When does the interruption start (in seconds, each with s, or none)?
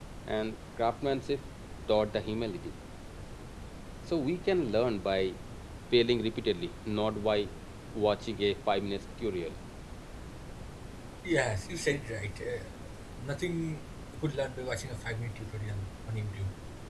none